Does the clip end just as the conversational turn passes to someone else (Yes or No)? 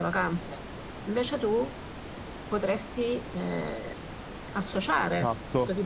Yes